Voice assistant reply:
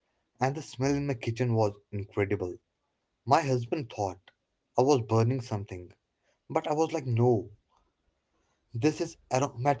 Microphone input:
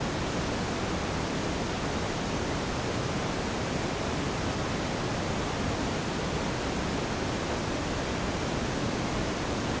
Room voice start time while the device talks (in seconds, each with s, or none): none